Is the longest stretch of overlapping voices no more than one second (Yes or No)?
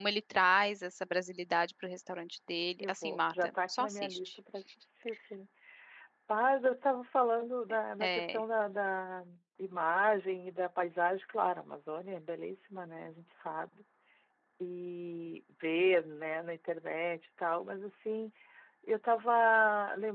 No